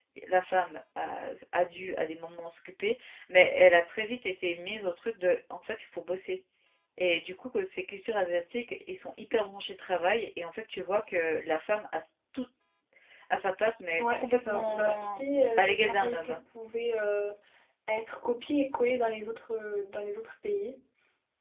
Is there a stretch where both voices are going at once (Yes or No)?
Yes